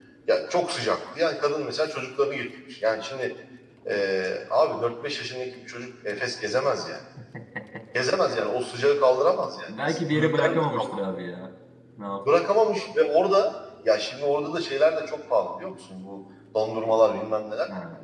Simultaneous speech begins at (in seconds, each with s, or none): 9.7 s